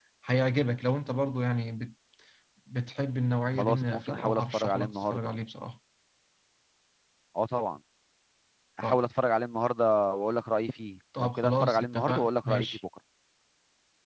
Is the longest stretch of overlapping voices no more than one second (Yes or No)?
No